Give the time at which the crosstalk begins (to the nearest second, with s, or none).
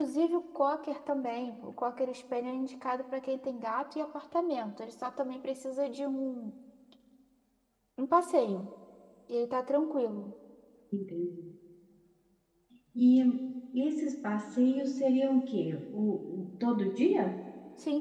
none